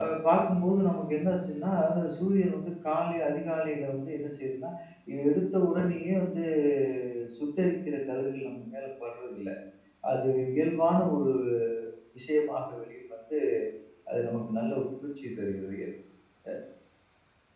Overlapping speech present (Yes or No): No